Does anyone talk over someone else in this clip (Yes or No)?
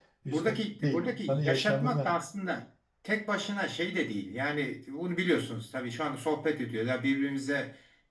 Yes